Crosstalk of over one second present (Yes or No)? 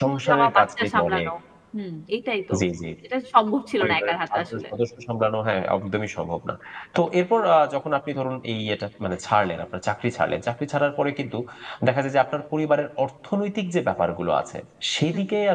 Yes